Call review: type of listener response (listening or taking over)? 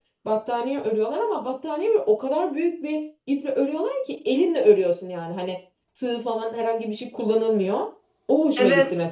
taking over